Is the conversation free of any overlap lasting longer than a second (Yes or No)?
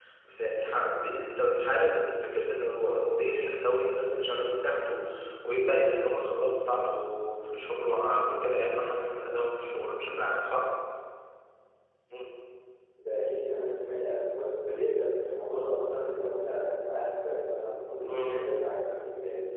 Yes